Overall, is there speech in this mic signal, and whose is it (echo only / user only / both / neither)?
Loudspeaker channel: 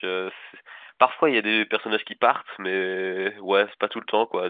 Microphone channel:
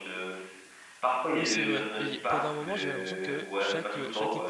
both